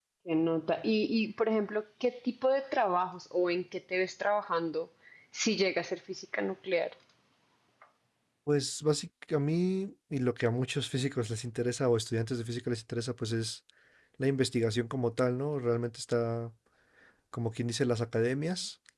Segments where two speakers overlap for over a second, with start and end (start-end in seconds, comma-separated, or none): none